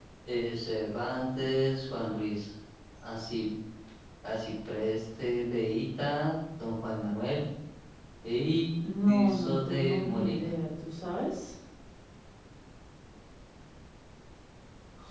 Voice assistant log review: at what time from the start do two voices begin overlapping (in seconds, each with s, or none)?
9.1 s